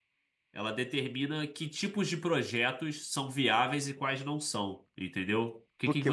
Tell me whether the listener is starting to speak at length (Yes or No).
Yes